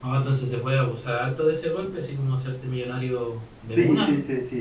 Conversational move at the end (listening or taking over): taking over